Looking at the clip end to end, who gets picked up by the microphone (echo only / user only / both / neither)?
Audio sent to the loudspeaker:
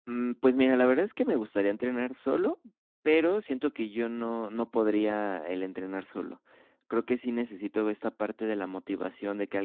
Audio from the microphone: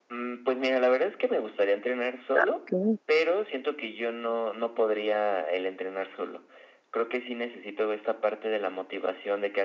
both